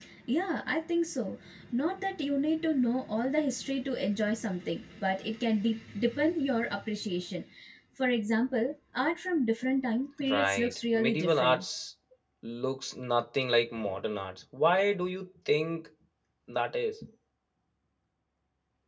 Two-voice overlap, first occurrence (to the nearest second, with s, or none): 10 s